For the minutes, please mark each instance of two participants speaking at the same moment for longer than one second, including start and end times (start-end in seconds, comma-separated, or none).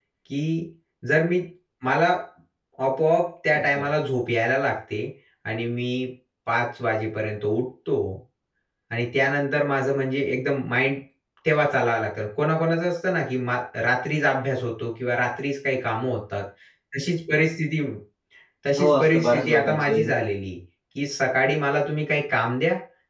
18.8-20.0